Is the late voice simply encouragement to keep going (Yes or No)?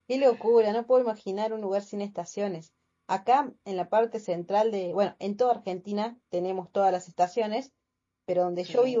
Yes